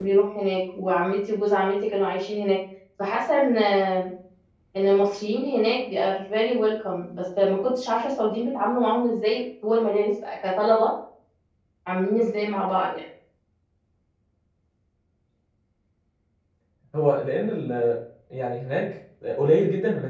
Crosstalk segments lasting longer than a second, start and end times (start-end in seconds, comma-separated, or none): none